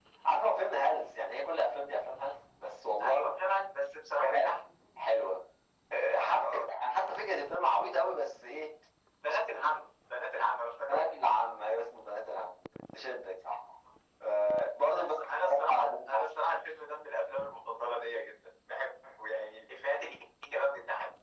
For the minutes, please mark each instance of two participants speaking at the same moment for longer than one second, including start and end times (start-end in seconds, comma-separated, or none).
15.0-16.2